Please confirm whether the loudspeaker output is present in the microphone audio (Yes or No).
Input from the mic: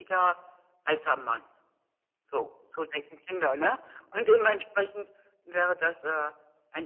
Yes